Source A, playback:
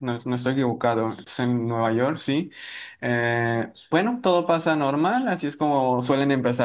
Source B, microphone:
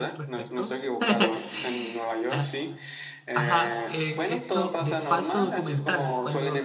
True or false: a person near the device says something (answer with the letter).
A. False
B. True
B